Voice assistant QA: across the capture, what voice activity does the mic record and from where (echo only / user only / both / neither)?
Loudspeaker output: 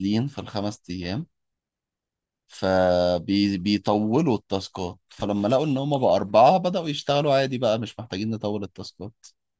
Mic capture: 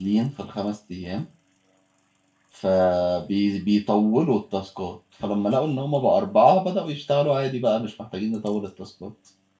echo only